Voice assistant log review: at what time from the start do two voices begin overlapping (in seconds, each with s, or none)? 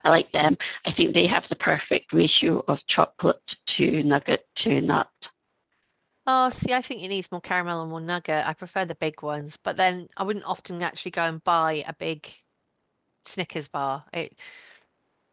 none